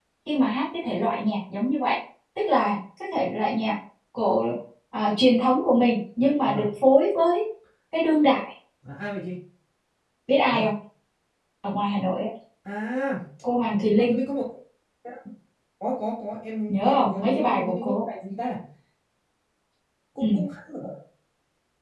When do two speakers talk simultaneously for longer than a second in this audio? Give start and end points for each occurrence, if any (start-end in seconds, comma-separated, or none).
16.7-18.0